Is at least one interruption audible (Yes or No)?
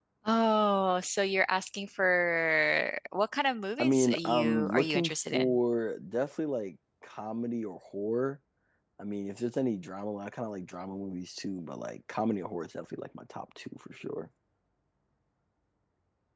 Yes